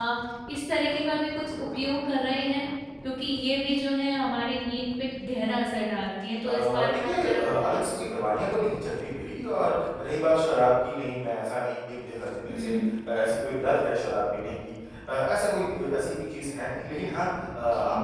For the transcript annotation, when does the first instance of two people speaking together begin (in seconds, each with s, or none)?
6.4 s